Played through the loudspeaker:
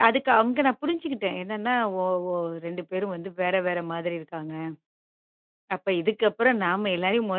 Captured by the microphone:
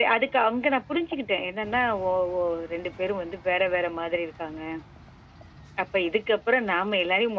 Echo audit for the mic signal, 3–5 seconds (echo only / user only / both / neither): echo only